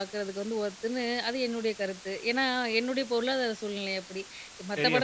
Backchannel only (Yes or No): Yes